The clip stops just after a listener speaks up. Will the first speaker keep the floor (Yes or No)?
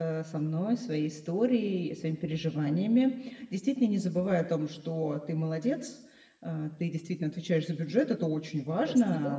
Yes